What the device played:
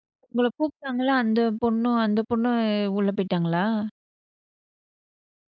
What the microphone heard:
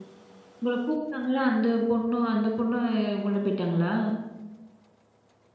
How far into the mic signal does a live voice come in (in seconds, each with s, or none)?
none